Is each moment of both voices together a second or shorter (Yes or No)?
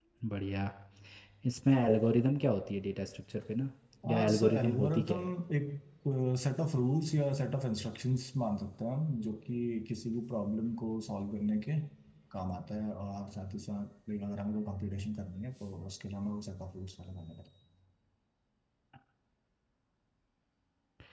No